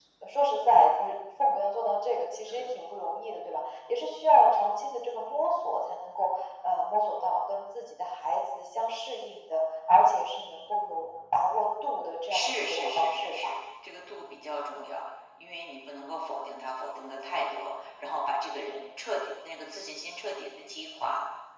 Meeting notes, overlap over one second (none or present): present